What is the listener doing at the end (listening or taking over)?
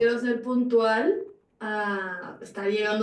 taking over